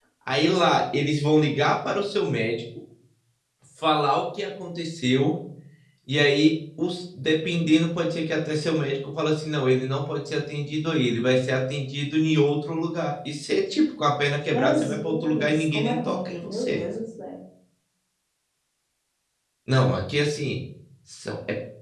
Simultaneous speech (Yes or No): Yes